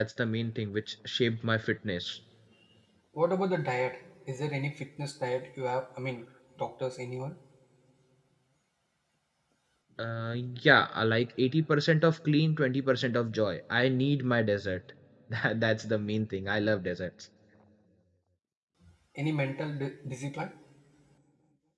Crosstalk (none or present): none